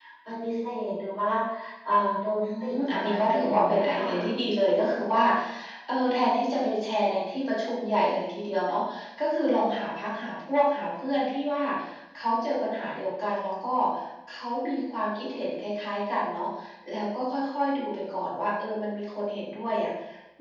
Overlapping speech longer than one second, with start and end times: 2.4-4.0

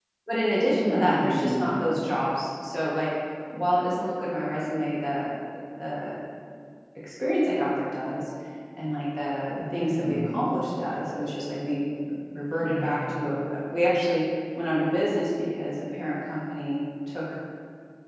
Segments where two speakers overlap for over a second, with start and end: 0.7-1.9

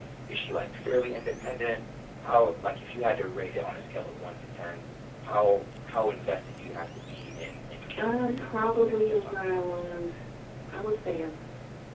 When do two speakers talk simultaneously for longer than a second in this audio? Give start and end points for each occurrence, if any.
8.0-10.0

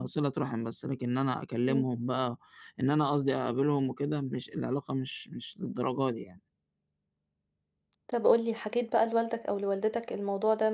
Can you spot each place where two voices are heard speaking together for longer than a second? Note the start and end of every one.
none

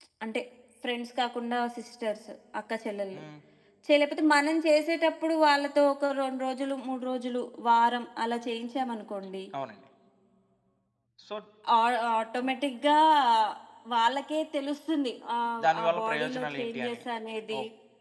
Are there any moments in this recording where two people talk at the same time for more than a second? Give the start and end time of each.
15.6-17.0

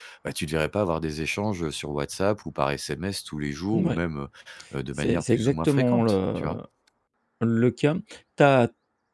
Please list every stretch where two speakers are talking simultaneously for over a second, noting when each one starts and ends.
5.0-6.5

